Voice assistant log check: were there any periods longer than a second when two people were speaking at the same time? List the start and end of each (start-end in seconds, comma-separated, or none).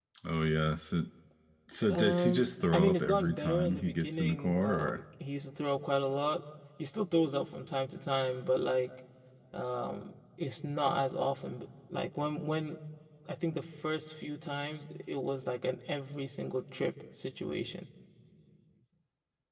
1.8-5.0